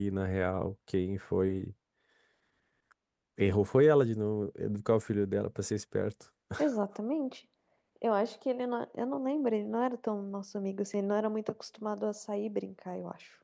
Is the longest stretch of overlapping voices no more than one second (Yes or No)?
Yes